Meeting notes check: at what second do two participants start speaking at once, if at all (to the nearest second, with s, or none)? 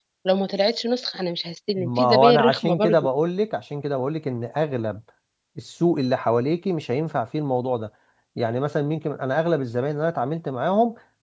2 s